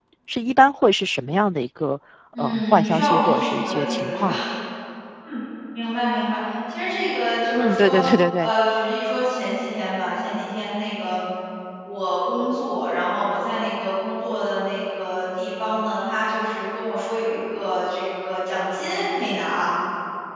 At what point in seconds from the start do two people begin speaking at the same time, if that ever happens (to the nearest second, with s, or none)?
2 s